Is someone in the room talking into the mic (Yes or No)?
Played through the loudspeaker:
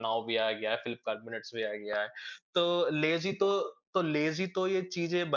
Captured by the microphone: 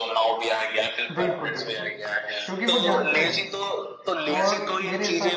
Yes